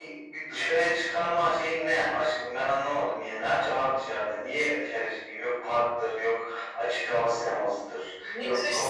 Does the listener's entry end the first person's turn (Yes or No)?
Yes